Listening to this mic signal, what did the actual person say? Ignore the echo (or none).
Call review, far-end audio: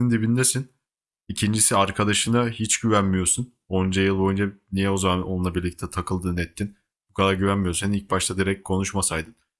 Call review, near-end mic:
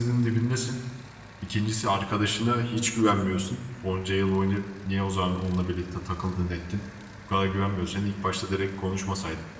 none